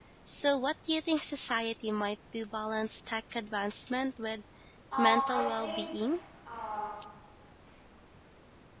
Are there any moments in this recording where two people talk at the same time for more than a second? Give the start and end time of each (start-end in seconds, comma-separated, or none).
5.0-6.2